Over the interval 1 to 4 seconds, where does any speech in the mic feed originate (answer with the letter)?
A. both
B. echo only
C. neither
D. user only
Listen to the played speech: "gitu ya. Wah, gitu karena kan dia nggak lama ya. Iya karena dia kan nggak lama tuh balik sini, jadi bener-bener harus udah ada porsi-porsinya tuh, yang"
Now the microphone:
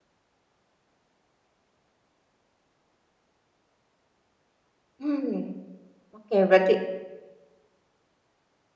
C